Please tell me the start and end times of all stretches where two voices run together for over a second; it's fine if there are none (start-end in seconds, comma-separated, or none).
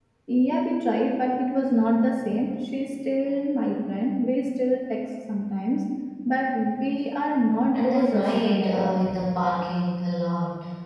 7.7-9.1